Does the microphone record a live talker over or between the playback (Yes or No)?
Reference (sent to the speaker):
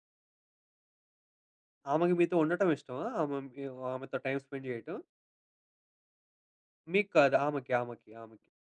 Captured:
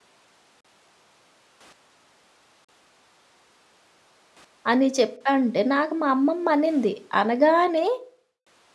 Yes